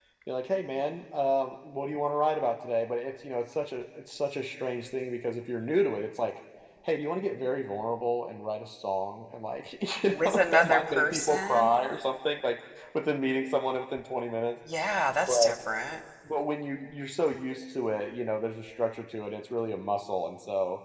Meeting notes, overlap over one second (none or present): present